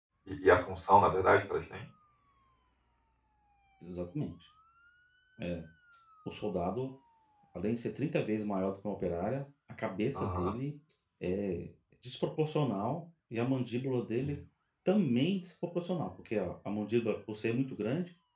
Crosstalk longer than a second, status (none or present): none